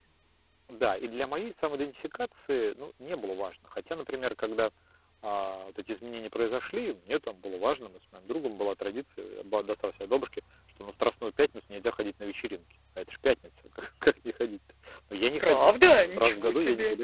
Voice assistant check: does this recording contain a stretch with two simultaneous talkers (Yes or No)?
Yes